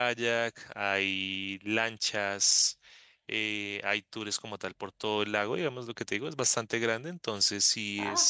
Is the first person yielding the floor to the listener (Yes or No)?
No